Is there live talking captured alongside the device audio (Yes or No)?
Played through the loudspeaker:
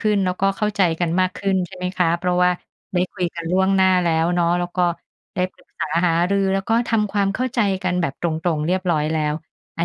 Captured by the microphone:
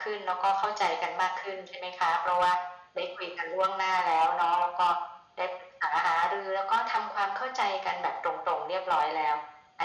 No